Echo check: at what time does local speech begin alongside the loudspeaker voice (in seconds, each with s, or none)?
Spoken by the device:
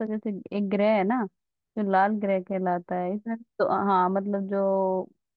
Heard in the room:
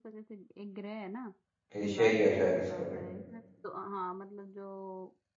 1.8 s